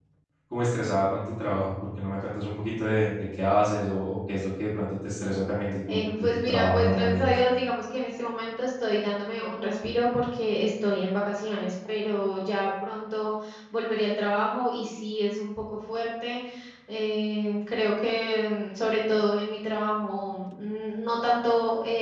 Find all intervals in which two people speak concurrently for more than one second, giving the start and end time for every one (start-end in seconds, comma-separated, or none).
5.9-7.4